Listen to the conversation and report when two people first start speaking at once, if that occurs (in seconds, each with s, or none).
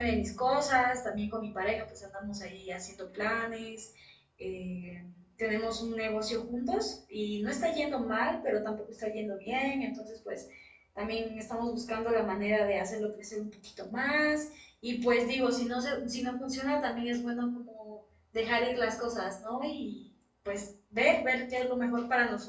none